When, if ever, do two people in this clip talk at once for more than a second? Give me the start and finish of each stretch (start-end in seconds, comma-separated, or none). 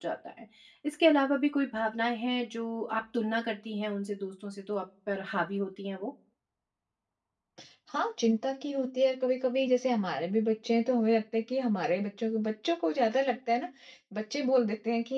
none